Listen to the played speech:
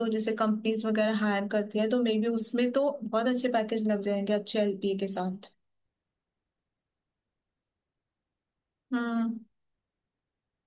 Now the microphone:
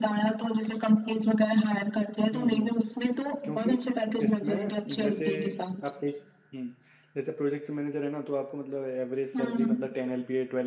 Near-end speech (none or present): present